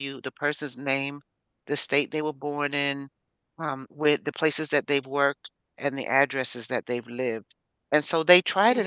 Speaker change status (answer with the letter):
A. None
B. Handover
A